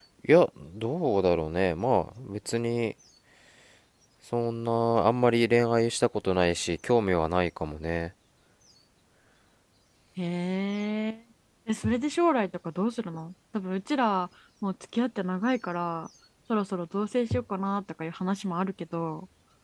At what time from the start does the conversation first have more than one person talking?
none

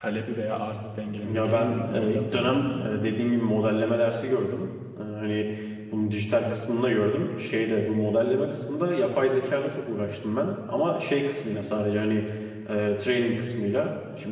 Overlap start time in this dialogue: 1 s

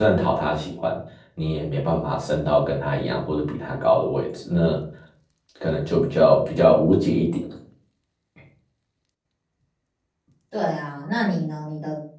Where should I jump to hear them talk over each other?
none

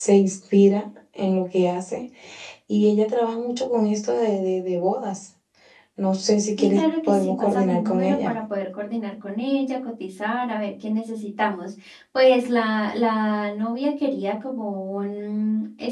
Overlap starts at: 7 s

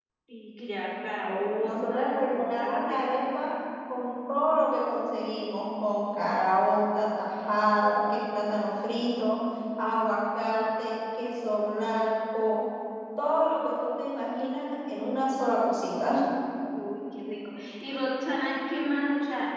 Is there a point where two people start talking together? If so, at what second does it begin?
2 s

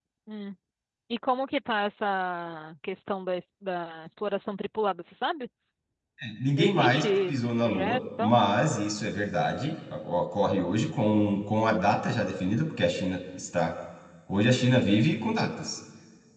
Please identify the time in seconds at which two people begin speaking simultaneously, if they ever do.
7 s

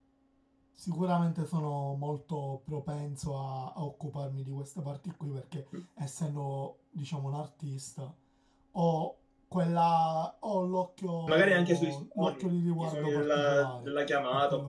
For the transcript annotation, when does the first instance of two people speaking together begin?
11 s

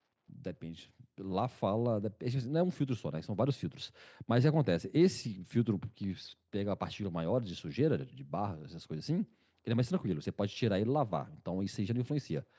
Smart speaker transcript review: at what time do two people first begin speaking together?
none

